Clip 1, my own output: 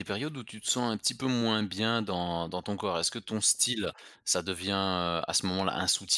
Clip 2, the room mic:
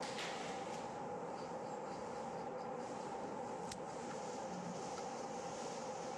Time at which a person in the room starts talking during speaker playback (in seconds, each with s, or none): none